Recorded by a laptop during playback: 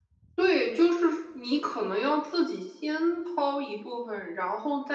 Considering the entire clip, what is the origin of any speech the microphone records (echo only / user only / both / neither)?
echo only